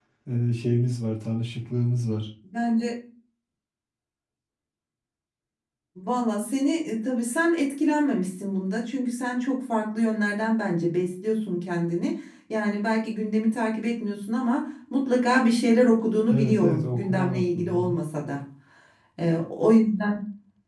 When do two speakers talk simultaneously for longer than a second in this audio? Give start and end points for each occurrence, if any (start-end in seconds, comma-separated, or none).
16.3-18.0